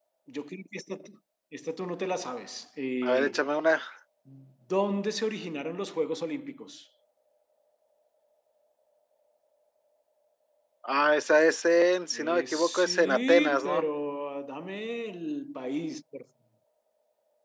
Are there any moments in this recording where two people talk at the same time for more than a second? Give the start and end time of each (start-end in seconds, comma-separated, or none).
12.1-13.8